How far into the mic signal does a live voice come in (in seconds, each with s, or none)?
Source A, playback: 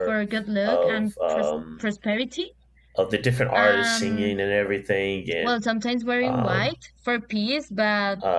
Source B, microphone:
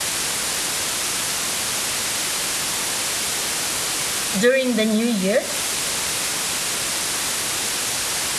4.4 s